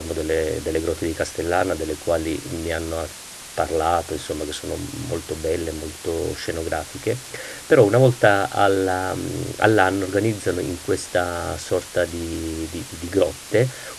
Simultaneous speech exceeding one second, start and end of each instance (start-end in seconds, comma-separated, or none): none